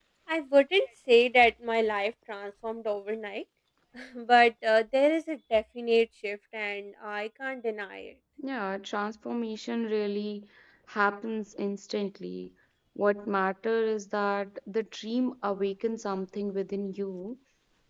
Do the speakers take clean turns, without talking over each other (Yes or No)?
Yes